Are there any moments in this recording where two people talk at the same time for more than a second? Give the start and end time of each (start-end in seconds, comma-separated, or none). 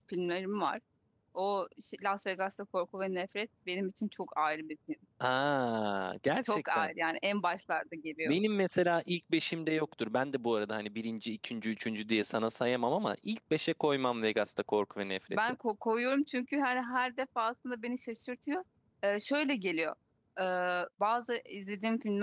none